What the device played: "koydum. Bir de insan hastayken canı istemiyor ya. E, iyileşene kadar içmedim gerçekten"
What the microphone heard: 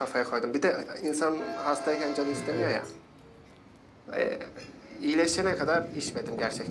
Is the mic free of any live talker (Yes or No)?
No